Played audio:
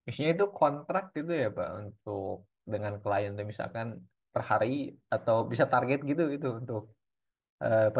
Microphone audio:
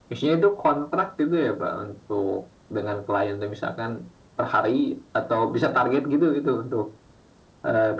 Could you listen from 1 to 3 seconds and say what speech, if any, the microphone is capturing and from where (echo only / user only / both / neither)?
echo only